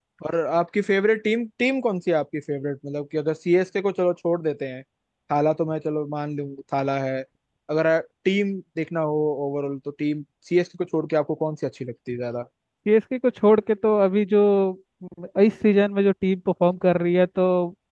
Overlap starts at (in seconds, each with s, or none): none